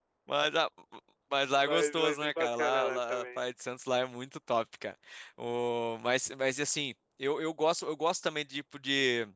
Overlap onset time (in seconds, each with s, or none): 1.5 s